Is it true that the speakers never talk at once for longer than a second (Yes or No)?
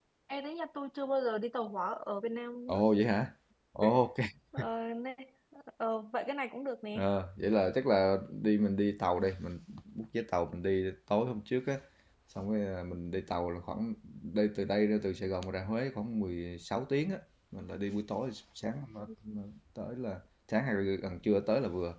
Yes